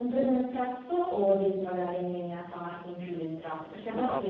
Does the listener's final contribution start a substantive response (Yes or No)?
Yes